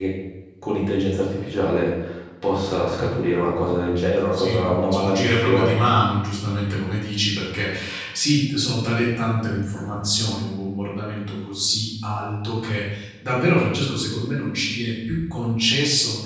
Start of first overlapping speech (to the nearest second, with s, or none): 4 s